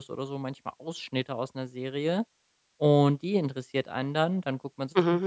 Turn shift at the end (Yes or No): No